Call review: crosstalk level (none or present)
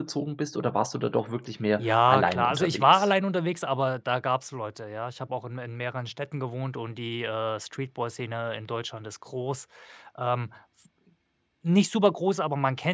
present